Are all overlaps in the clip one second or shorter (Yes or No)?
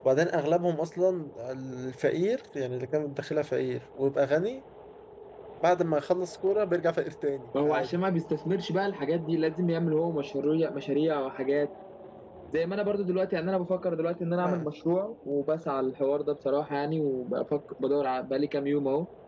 Yes